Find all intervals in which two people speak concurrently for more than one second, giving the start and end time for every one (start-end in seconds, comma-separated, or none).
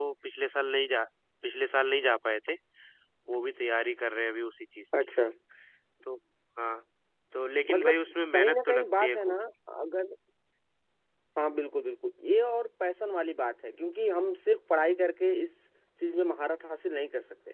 7.7-9.4